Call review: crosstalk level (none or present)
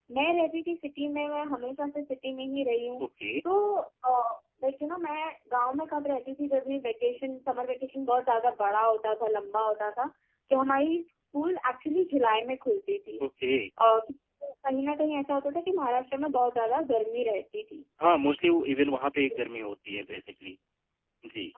none